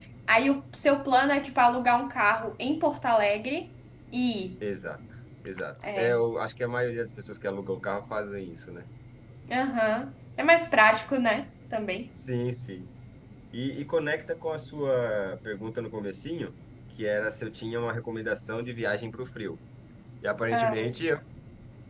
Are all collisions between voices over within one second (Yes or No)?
Yes